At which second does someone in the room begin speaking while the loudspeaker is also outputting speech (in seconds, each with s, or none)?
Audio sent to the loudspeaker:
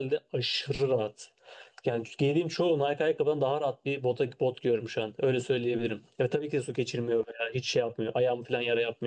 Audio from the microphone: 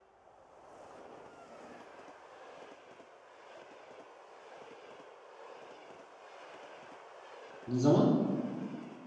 7.7 s